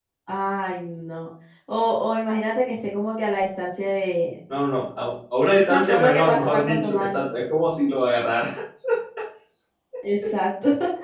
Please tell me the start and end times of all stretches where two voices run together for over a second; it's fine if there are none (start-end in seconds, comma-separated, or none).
5.6-7.2